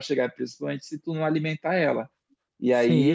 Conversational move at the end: listening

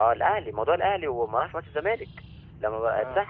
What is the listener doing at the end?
listening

